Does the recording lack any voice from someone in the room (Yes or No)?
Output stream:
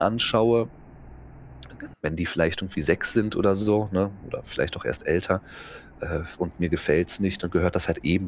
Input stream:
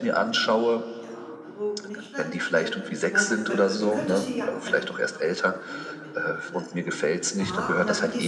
No